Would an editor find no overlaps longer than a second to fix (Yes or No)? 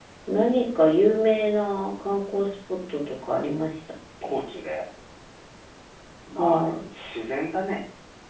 Yes